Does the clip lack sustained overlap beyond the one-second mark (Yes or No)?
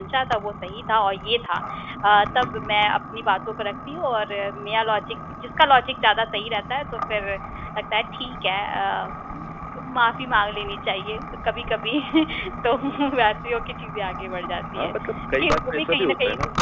No